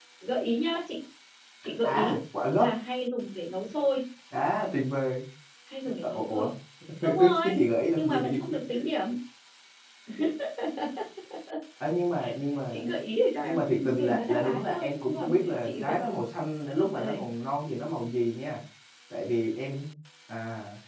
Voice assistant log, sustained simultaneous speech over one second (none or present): present